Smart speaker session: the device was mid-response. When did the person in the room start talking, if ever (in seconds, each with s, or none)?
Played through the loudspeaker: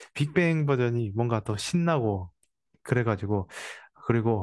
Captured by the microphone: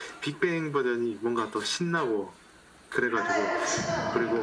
3.0 s